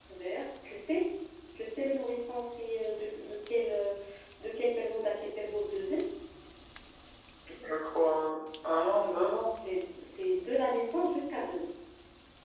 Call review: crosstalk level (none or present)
none